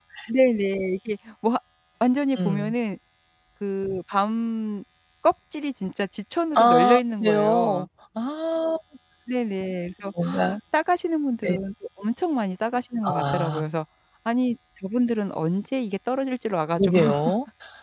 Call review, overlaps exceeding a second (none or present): present